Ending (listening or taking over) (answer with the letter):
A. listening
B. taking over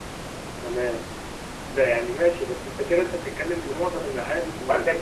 B